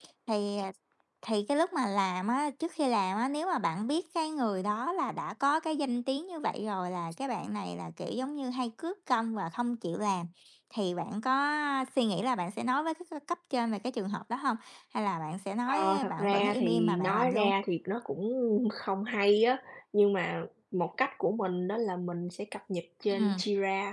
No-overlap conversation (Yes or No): No